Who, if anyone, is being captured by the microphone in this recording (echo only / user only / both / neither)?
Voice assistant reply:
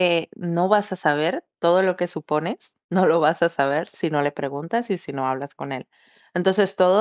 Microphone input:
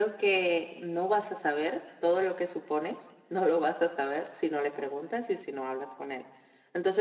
echo only